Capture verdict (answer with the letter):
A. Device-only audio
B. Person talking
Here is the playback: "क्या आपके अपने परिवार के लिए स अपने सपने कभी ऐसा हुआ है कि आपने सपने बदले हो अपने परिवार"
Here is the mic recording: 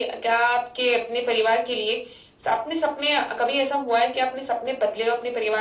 A